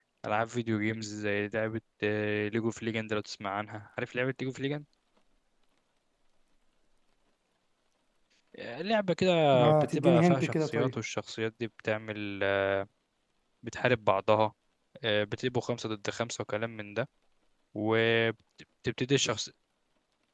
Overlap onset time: 10 s

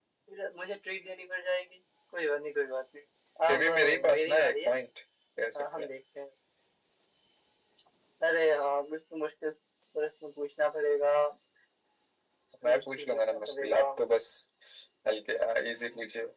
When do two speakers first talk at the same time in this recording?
3 s

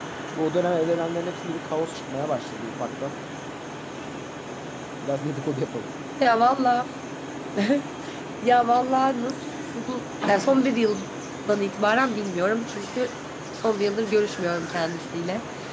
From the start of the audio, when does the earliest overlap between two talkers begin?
none

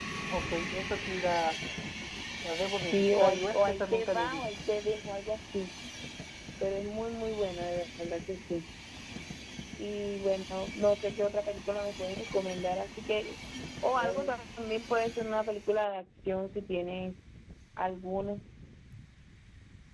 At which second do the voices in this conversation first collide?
3 s

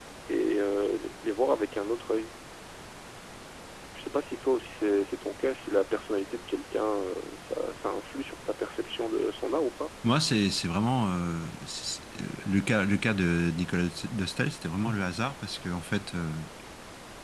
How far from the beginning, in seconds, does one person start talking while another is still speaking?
none

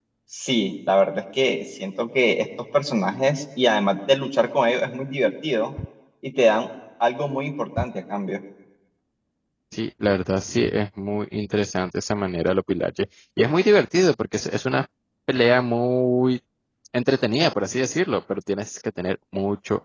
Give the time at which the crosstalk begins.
none

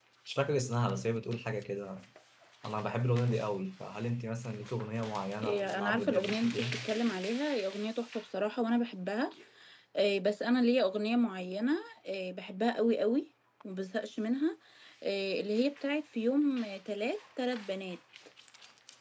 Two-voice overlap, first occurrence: 5 s

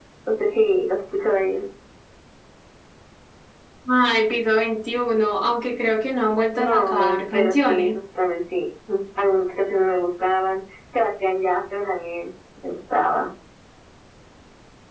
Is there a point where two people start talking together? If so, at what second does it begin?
7 s

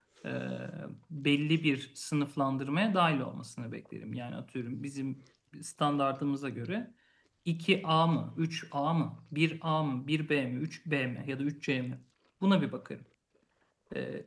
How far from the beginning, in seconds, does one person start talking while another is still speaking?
none

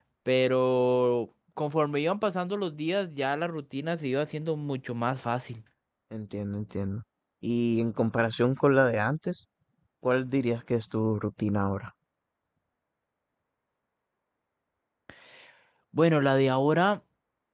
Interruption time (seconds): none

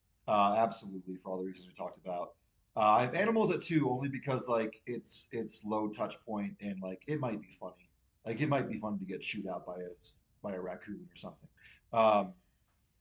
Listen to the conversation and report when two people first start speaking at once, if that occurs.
none

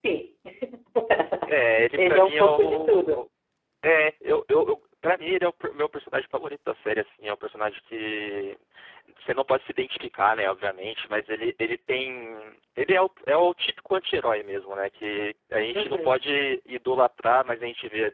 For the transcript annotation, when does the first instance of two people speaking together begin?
2 s

